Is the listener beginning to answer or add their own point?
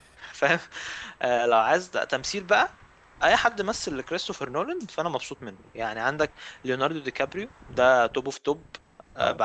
No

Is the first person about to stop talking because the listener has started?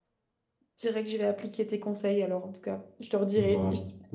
No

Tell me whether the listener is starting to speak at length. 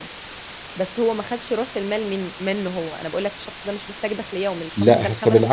Yes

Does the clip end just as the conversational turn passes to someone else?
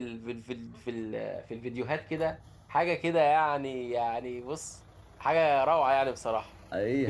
Yes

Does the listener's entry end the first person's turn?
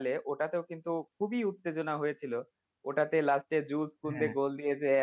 No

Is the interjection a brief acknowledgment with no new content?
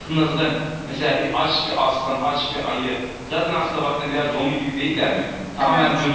Yes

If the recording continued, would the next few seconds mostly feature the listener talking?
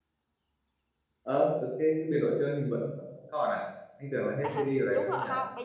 Yes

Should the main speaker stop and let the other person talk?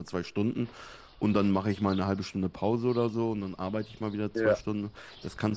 No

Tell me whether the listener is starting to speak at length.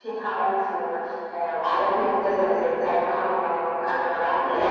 Yes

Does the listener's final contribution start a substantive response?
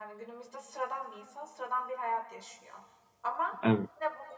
No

